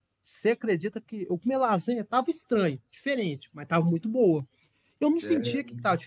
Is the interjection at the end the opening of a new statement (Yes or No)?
No